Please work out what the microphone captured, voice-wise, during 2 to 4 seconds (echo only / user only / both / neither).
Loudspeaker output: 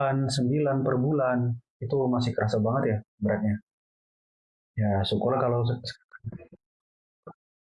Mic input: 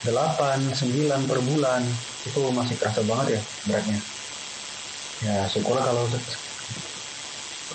echo only